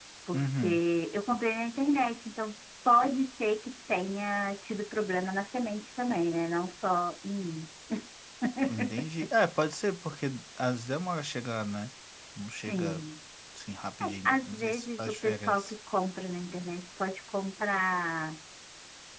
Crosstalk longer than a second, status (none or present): present